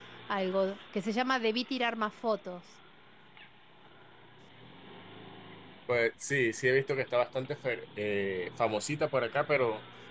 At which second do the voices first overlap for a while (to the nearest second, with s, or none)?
none